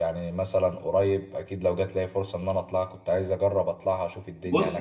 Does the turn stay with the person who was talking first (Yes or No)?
No